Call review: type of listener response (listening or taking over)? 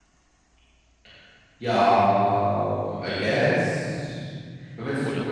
listening